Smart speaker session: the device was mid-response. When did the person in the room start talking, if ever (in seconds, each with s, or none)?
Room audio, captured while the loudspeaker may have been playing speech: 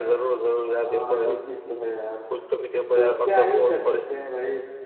0.8 s